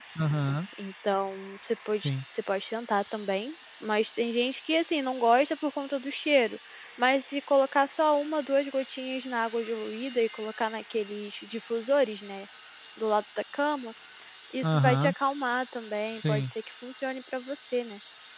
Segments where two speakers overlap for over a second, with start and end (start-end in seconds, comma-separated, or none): none